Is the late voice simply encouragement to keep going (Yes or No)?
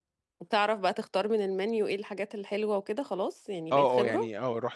No